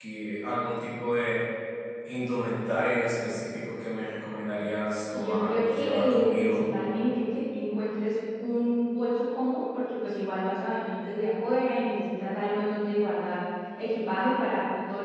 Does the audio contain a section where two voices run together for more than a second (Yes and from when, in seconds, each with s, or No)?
Yes, from 5.1 s